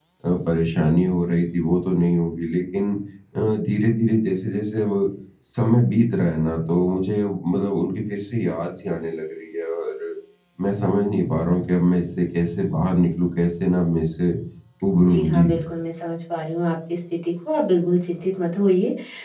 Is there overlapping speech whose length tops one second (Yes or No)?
No